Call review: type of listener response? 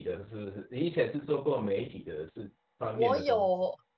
taking over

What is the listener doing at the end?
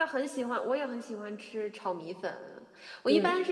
listening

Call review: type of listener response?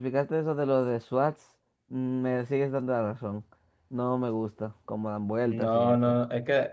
taking over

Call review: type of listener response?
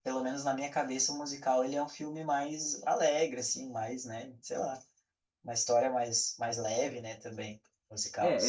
taking over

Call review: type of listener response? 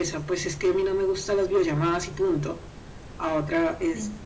listening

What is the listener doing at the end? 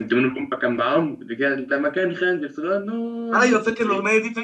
taking over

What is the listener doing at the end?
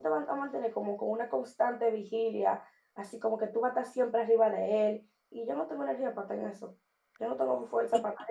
listening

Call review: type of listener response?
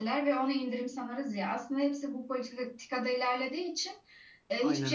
listening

